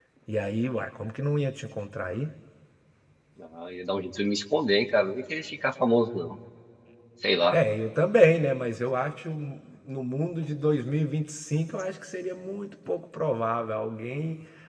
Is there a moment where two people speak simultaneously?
No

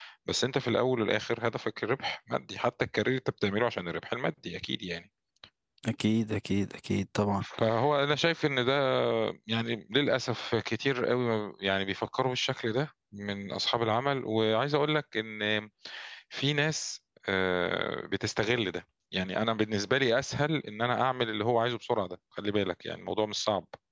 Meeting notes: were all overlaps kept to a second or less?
Yes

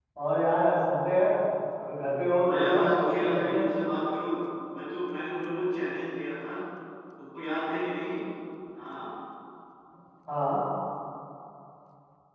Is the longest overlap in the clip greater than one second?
Yes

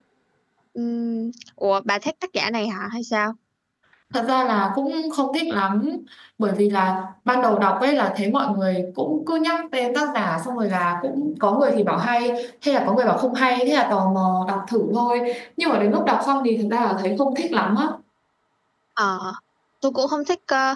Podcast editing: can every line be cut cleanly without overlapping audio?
Yes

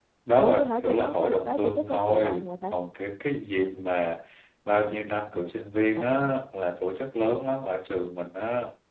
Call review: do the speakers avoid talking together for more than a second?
No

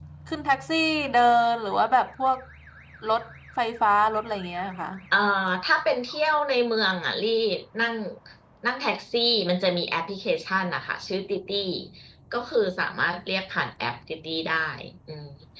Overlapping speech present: No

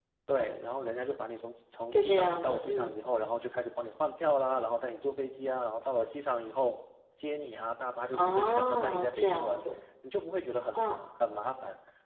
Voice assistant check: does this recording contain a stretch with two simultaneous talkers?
Yes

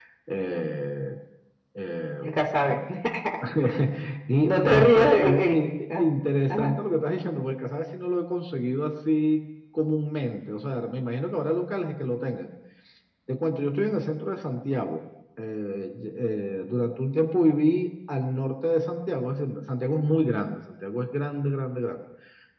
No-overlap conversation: No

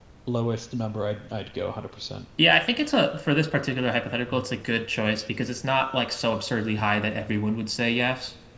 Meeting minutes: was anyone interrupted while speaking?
No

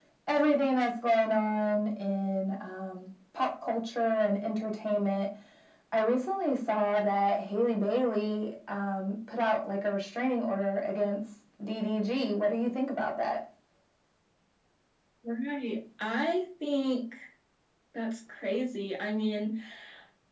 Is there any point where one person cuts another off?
No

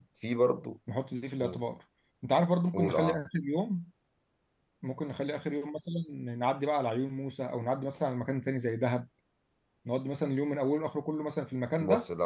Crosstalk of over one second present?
No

